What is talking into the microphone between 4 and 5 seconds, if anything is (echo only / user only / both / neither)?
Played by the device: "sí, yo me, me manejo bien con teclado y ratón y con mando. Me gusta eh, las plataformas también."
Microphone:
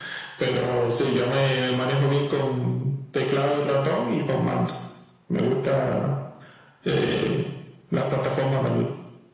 echo only